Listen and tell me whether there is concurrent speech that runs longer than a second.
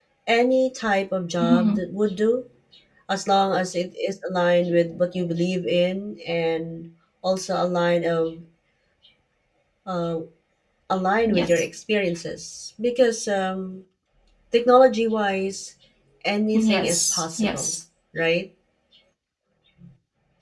Yes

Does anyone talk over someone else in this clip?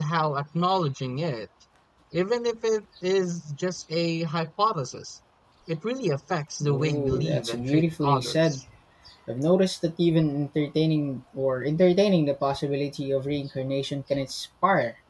Yes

